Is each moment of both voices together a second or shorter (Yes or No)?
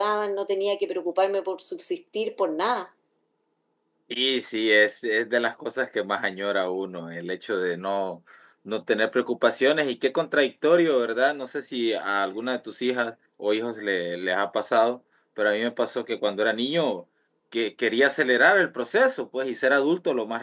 Yes